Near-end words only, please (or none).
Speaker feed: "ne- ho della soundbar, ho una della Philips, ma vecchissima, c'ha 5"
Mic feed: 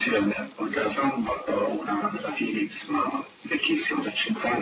none